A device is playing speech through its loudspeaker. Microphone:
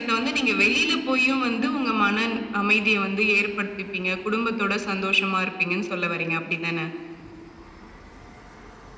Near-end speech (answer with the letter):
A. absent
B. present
A